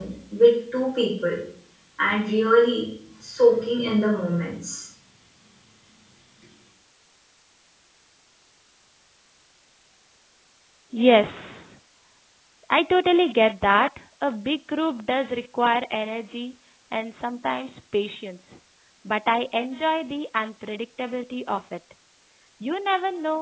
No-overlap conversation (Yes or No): Yes